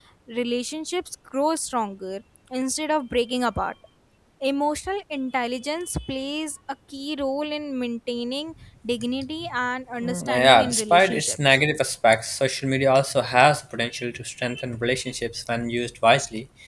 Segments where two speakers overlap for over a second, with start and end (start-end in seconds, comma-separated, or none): 10.0-11.4